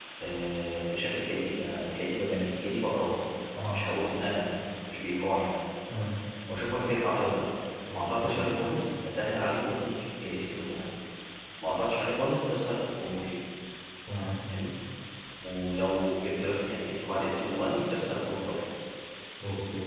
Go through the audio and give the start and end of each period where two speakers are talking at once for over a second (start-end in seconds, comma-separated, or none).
none